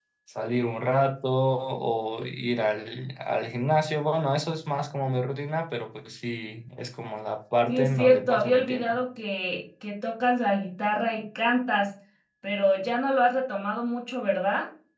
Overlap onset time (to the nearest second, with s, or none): 8 s